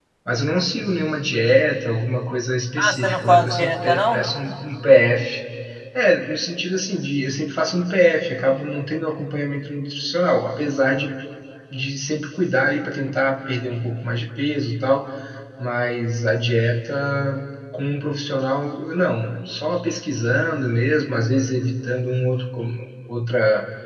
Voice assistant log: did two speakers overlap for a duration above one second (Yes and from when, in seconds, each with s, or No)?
Yes, from 2.8 s